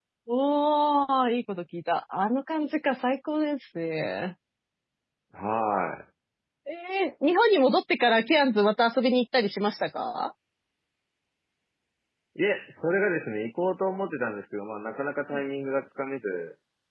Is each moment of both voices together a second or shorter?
Yes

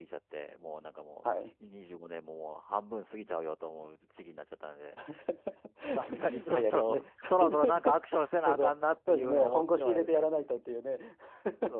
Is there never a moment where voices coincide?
No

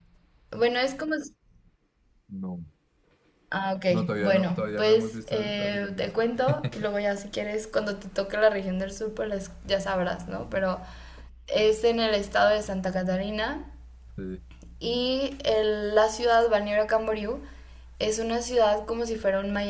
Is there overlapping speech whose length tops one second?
Yes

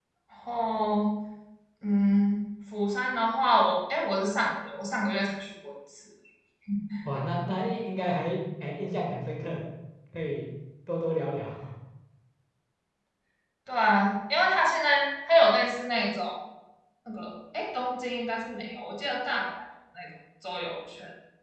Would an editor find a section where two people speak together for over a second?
No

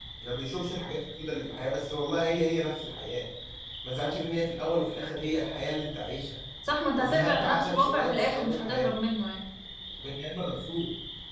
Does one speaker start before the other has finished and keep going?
Yes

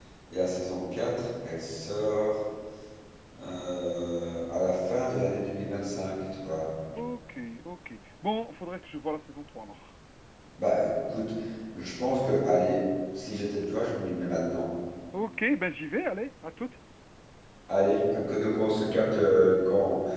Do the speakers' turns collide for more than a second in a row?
No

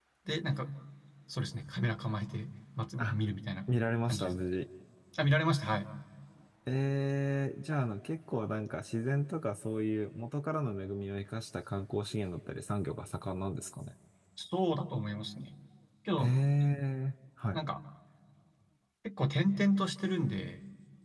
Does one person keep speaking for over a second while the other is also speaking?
No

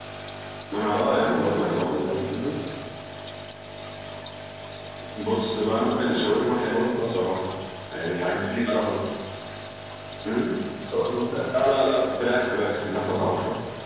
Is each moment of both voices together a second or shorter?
No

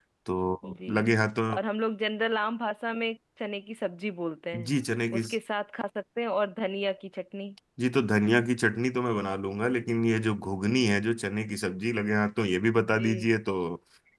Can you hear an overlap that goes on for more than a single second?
No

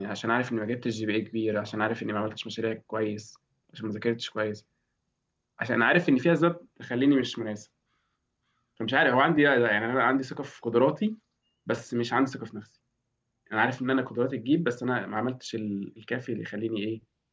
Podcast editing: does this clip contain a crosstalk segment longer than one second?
No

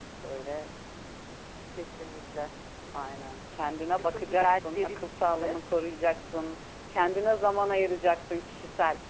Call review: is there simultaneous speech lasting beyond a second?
Yes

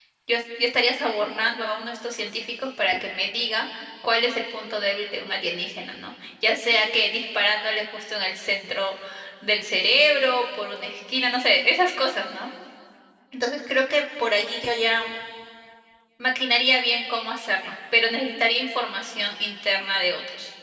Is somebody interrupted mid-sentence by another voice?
No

